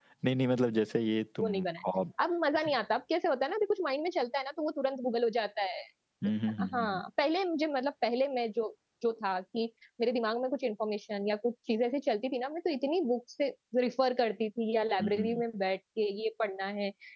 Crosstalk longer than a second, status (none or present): none